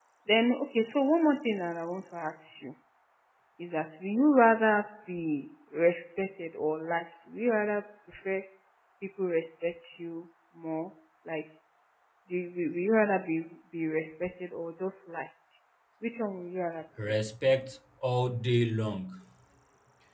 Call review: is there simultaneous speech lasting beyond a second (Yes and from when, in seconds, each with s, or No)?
No